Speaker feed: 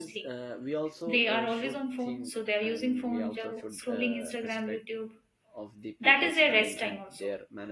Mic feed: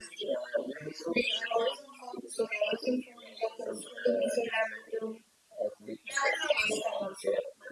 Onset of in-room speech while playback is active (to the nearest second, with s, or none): none